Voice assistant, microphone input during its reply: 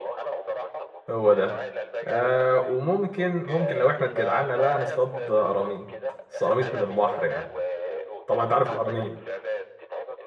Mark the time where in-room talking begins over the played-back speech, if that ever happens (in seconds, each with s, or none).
1.1 s